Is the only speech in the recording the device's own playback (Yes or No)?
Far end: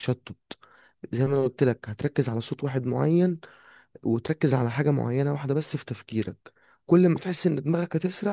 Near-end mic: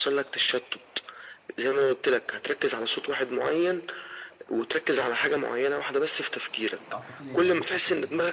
No